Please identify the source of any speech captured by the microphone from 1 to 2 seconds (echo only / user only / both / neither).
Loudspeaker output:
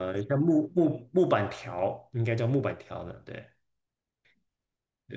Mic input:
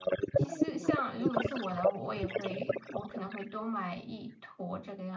both